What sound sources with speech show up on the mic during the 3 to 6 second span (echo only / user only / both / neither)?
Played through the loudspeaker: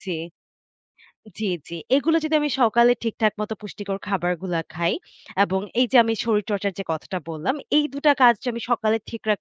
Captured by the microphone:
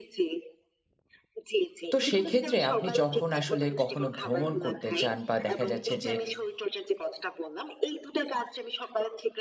both